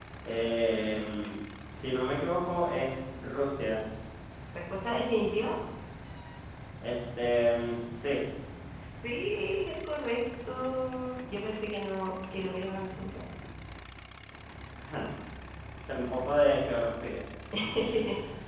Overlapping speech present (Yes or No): No